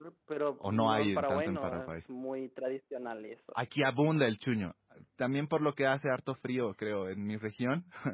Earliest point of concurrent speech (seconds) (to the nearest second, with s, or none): 1 s